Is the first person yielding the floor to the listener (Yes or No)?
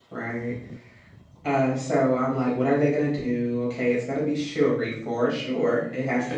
No